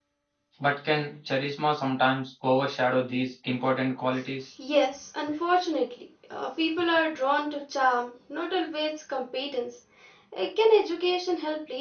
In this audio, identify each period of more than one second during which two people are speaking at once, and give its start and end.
none

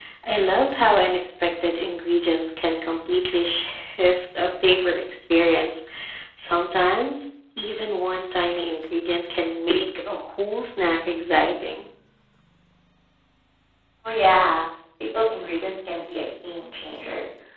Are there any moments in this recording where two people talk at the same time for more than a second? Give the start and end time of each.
none

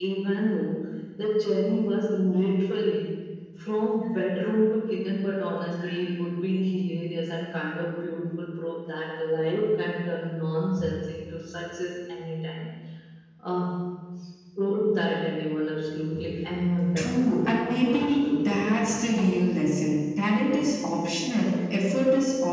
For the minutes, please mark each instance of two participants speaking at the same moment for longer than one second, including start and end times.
16.9-19.1

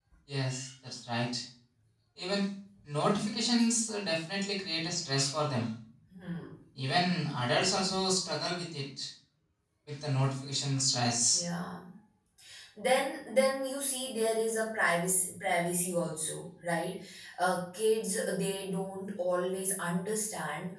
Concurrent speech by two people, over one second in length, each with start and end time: none

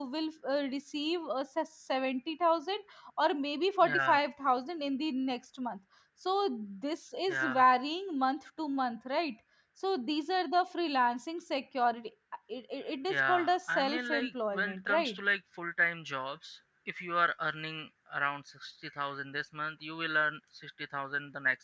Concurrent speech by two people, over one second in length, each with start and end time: 13.1-15.2

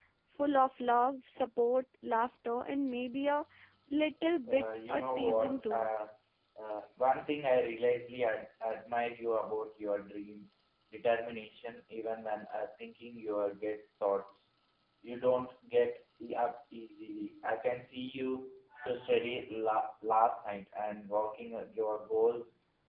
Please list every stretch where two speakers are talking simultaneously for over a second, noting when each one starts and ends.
4.5-5.9

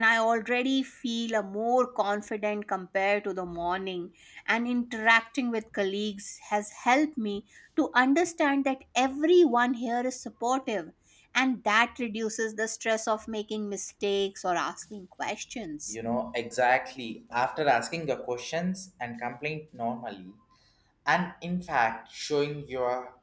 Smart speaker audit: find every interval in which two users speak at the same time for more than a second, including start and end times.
none

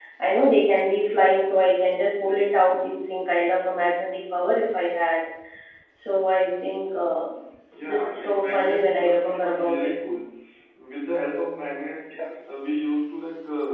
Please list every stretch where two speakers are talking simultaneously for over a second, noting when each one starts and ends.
7.8-9.8

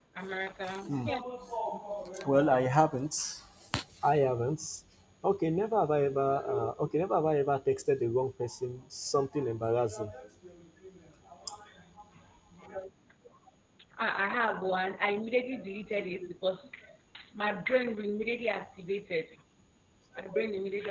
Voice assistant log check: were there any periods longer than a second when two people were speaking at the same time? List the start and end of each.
none

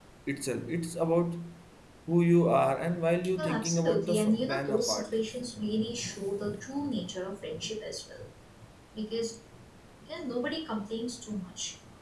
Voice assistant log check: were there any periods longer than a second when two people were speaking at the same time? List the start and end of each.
3.4-5.2

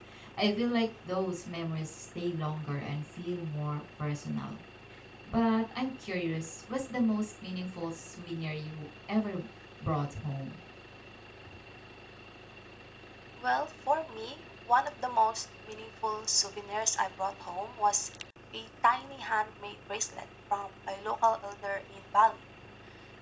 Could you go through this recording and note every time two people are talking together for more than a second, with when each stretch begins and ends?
none

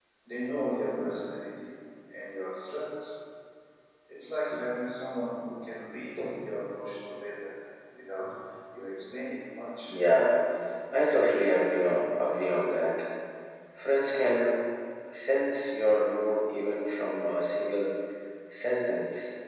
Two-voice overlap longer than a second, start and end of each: none

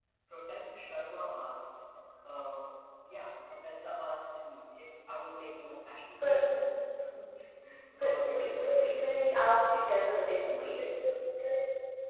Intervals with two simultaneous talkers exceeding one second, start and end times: 8.0-9.2

